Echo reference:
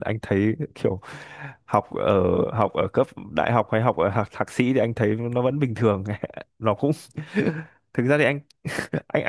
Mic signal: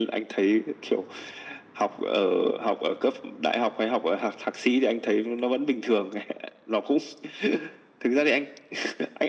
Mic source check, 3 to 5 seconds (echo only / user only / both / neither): echo only